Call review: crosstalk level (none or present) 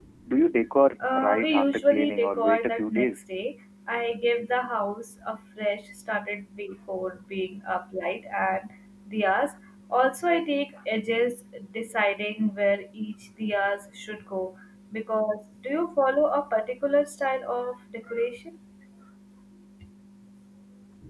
present